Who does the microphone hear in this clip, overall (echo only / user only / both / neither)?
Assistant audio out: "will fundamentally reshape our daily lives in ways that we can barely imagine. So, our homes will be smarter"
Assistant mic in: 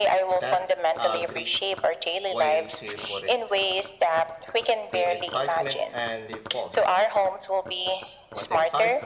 both